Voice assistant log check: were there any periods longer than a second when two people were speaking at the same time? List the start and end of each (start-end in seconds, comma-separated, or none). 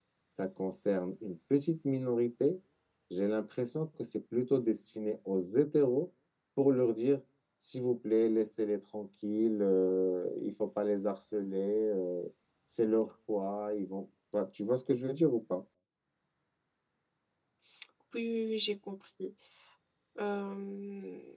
none